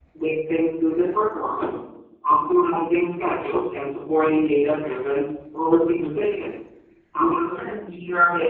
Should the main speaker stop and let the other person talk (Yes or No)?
No